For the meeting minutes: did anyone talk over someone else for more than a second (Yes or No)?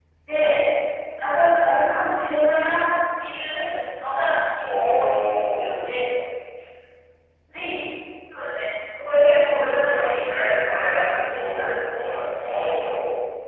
Yes